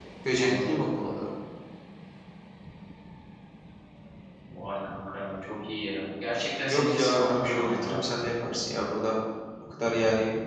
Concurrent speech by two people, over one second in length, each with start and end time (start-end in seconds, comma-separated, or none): 6.7-8.0